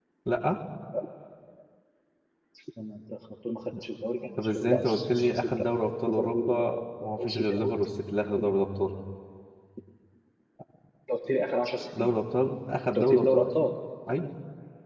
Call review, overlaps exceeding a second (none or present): present